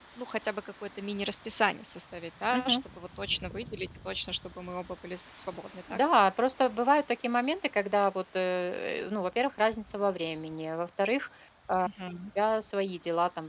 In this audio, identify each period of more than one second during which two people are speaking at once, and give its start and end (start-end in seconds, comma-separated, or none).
none